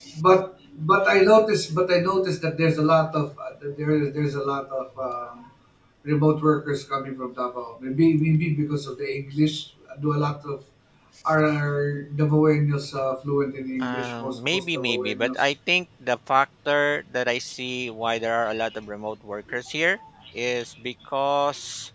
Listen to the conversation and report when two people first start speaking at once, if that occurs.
13.8 s

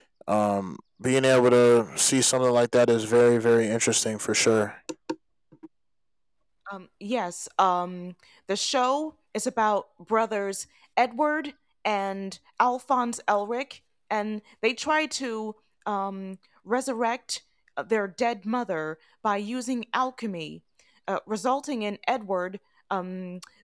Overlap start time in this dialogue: none

